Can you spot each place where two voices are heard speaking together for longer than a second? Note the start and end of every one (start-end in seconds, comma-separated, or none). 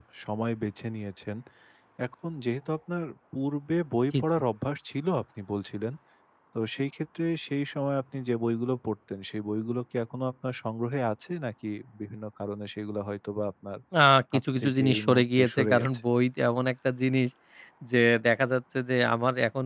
14.3-15.9